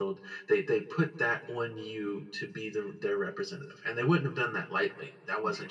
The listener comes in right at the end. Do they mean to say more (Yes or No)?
No